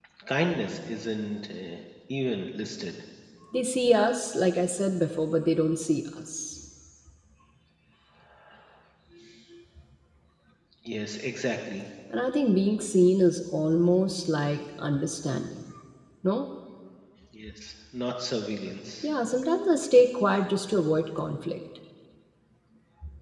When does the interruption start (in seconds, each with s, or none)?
none